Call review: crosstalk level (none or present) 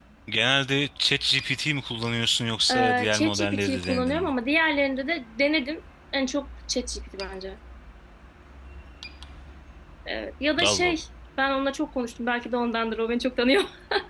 present